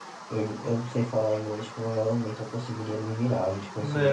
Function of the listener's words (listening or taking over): taking over